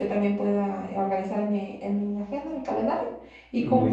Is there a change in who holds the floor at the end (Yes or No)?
No